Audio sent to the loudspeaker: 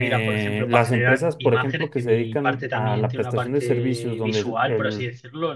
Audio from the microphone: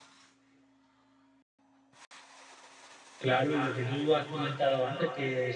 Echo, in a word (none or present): none